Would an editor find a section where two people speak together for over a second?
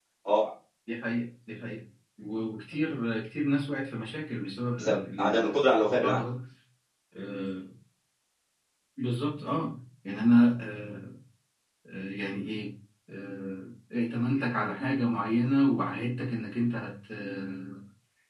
Yes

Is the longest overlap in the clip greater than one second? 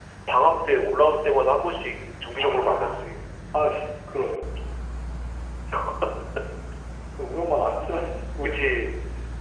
No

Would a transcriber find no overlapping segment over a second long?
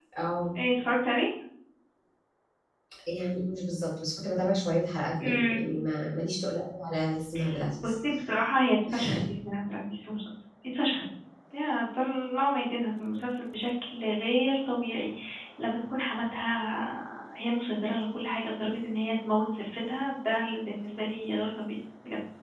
Yes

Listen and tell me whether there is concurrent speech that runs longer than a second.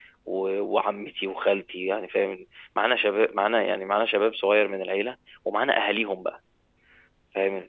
No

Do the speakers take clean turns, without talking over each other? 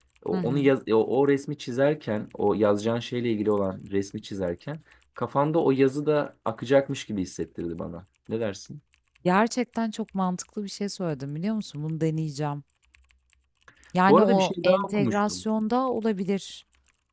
No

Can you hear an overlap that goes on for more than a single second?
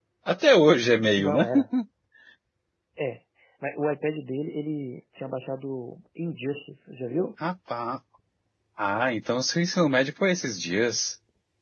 No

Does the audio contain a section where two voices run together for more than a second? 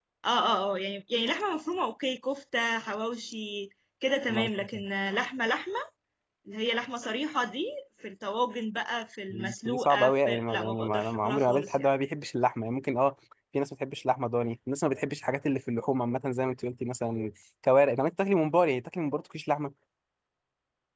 Yes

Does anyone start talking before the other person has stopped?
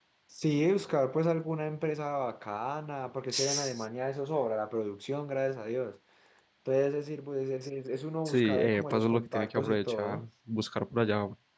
Yes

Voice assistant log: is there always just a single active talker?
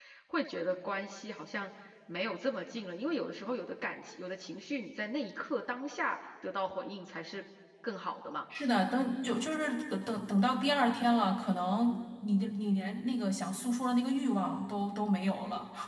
Yes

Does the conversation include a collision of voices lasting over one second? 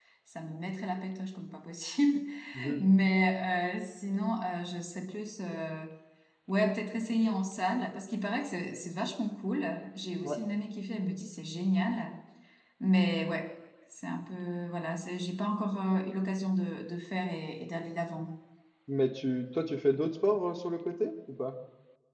No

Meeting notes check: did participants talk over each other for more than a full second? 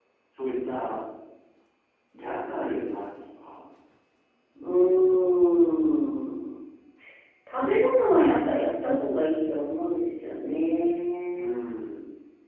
No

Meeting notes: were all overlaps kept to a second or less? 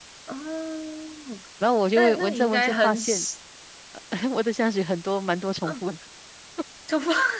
No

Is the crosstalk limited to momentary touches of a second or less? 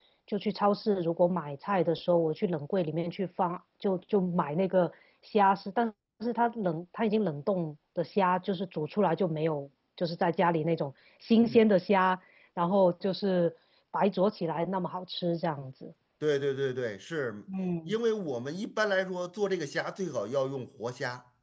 Yes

